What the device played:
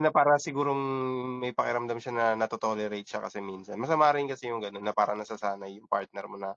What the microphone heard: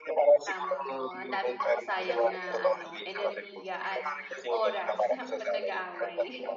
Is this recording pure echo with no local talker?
No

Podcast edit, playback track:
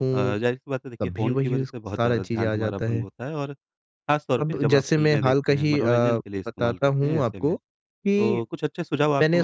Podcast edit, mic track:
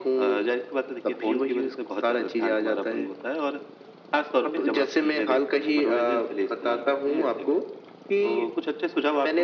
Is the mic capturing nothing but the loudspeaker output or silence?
Yes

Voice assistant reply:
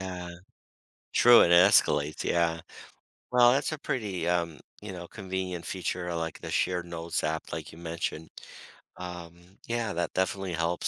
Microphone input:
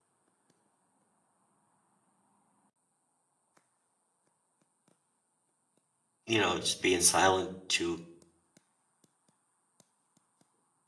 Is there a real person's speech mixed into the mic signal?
Yes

